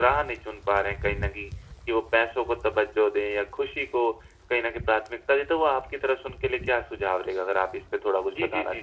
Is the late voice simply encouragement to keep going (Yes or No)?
No